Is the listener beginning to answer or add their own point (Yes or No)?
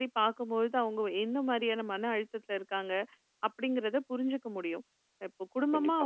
No